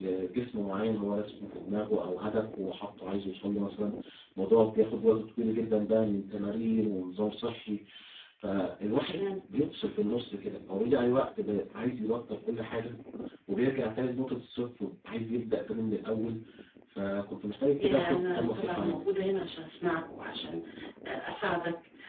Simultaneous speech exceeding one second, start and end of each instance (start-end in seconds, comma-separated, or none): 17.8-19.1